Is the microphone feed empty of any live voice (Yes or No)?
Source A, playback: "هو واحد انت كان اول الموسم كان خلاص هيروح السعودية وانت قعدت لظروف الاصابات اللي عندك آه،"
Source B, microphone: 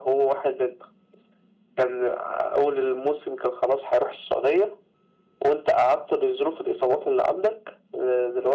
Yes